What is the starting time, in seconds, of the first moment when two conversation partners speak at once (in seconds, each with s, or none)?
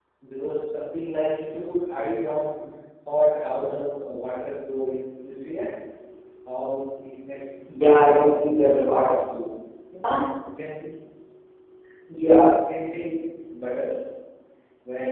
7.7 s